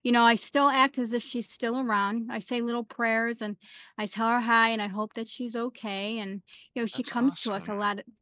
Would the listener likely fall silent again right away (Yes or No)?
Yes